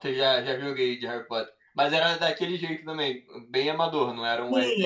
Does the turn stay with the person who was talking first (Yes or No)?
No